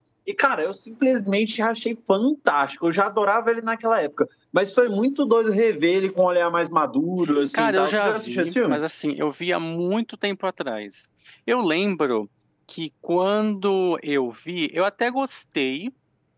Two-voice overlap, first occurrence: 7.5 s

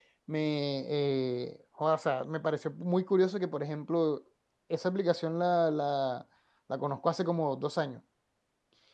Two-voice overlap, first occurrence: none

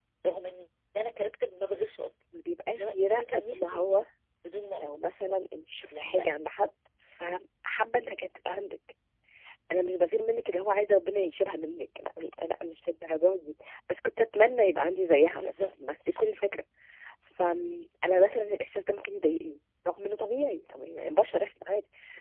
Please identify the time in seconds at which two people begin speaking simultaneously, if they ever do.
2.8 s

